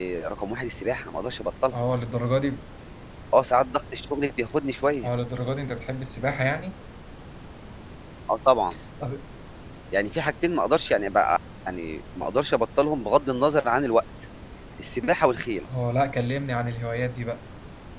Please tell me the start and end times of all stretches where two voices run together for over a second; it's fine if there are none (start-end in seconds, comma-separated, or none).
none